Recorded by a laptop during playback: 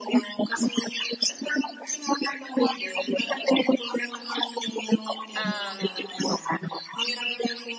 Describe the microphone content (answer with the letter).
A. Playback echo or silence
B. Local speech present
B